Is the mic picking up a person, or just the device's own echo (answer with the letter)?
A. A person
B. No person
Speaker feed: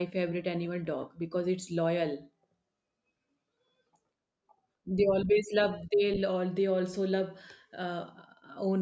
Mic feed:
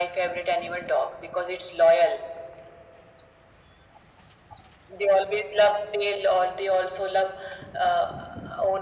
B